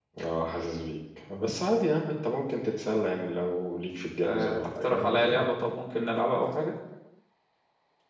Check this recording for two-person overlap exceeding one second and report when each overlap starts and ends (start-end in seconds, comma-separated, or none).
4.2-5.5